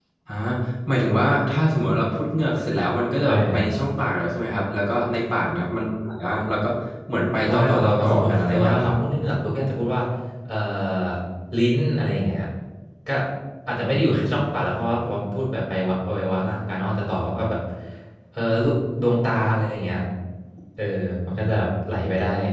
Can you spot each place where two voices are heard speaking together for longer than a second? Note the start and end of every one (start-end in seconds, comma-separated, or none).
7.5-8.9